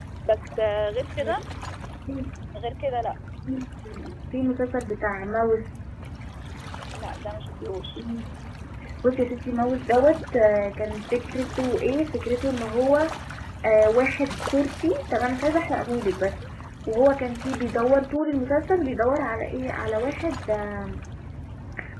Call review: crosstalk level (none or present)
none